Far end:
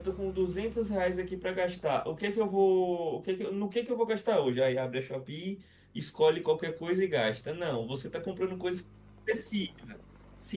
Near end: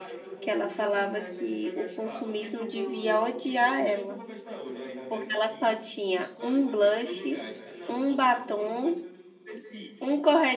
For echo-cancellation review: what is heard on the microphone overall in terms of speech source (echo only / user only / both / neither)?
both